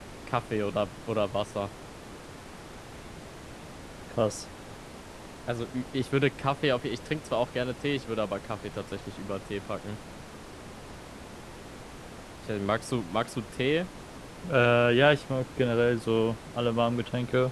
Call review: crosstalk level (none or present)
none